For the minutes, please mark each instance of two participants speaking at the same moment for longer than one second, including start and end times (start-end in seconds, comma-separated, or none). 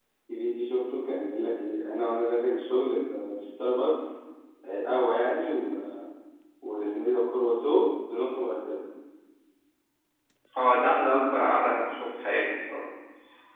none